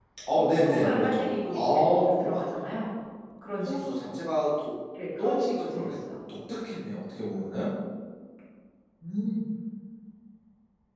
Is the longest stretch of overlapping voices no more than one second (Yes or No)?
No